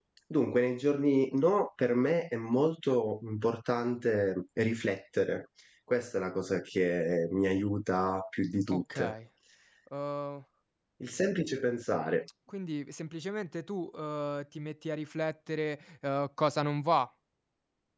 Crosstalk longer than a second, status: none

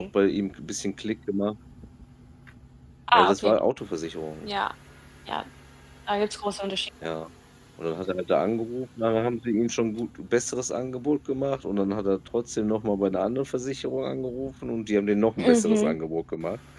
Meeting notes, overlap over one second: none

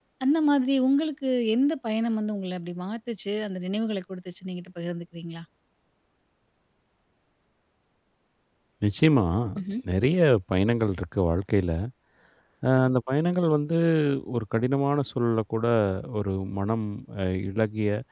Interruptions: none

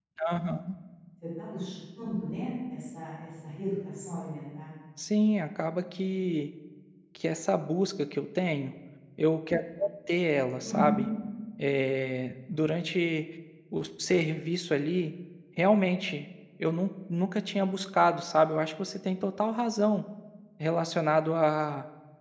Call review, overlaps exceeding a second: none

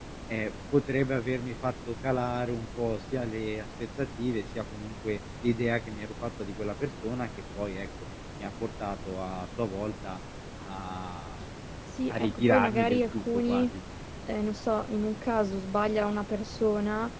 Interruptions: present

